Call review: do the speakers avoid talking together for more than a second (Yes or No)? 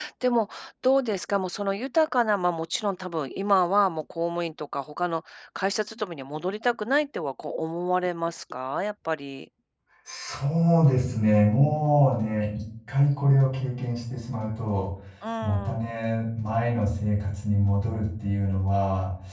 Yes